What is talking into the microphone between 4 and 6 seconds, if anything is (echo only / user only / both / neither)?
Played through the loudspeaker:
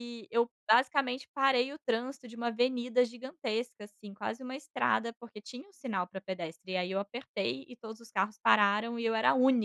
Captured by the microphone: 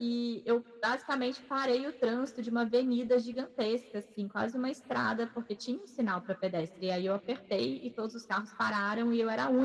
echo only